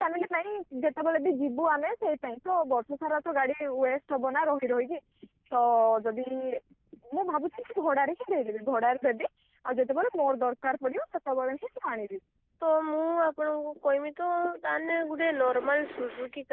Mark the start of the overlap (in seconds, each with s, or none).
none